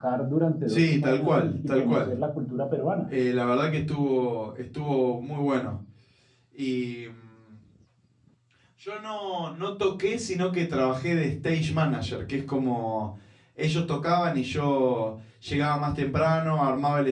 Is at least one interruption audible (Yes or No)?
Yes